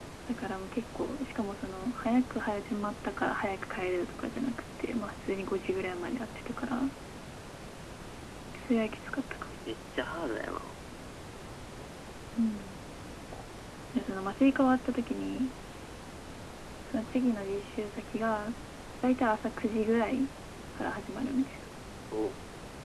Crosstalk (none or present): none